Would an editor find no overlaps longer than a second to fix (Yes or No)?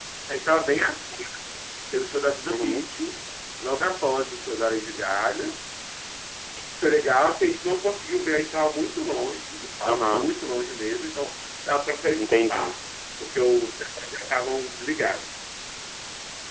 Yes